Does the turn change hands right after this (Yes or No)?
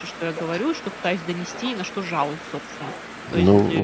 Yes